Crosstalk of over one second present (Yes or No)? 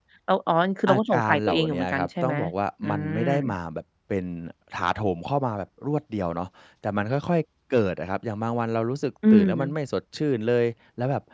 Yes